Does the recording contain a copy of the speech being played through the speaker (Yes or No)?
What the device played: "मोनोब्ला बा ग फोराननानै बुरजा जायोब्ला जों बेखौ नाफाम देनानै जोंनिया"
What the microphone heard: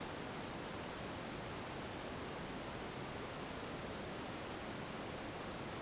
No